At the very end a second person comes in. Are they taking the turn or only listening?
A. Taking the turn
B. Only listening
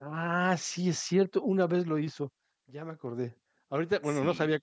B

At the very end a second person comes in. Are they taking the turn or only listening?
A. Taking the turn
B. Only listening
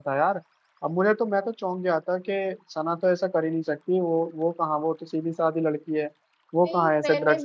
A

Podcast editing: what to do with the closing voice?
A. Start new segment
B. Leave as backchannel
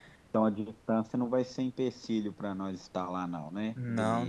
A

